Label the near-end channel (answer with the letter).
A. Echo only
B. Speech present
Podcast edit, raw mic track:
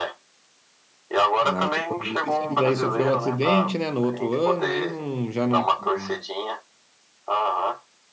B